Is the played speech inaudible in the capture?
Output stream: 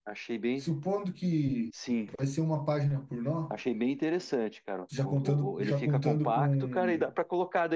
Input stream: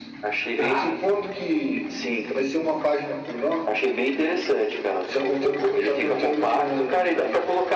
No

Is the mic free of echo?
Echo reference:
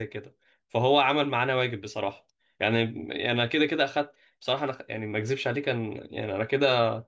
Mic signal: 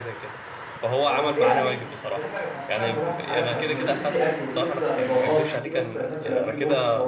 No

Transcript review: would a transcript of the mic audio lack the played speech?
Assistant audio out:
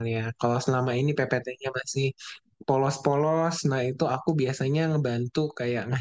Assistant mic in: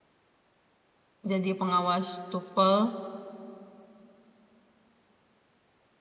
Yes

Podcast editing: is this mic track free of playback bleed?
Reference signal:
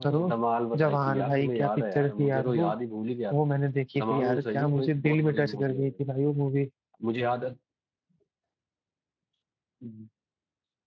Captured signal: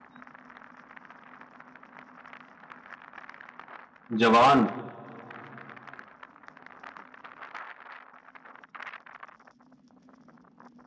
Yes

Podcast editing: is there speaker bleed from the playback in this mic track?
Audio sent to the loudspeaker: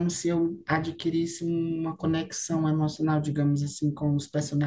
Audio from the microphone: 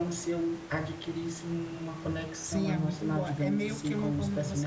Yes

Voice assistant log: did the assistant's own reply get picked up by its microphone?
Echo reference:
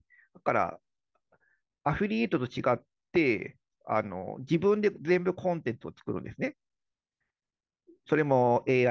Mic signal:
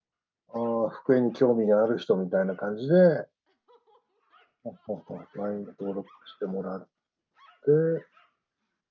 No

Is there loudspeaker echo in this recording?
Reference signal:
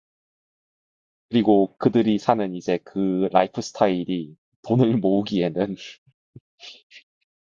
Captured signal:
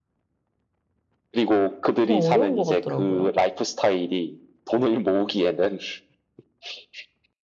Yes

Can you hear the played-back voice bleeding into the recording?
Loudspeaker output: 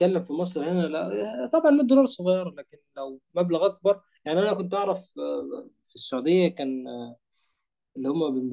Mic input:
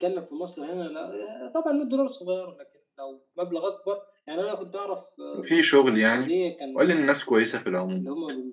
Yes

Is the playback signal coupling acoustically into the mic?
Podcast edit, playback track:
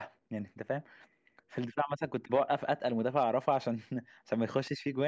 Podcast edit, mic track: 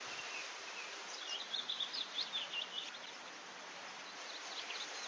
No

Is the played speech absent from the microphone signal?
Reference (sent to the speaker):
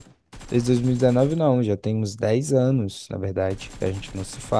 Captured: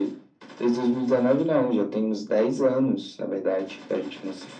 No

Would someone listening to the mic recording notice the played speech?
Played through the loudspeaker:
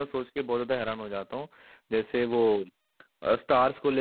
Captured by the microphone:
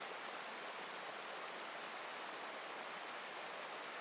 No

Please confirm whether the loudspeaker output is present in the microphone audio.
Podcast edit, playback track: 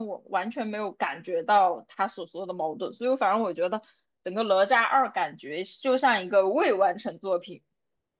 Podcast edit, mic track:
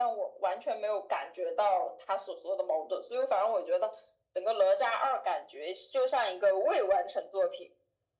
Yes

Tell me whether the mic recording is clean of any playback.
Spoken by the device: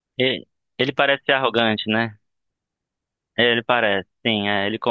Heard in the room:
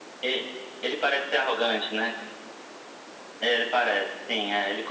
No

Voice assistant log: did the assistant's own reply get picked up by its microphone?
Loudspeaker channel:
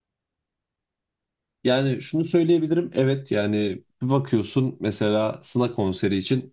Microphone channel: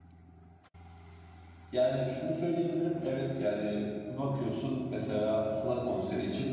Yes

